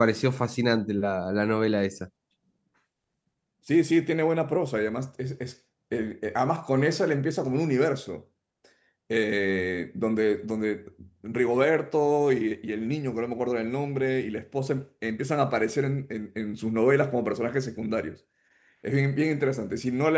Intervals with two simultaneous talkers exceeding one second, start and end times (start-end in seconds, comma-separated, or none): none